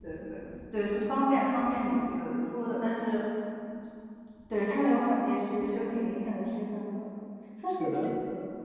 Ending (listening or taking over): listening